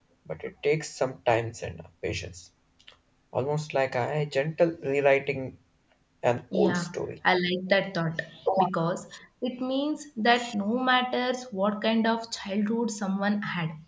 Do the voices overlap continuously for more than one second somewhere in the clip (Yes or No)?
No